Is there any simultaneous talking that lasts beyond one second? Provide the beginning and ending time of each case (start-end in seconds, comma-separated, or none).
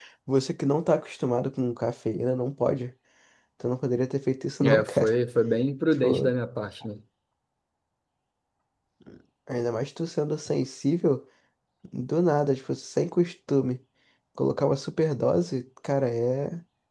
none